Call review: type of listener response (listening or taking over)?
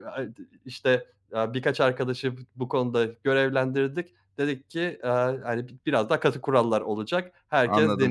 taking over